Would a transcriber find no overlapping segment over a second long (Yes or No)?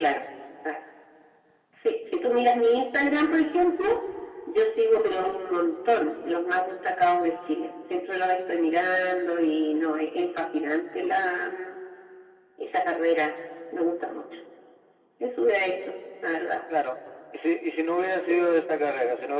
Yes